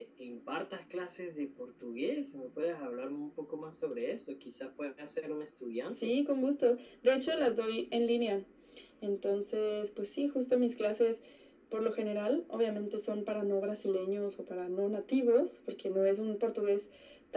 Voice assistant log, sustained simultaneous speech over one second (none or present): none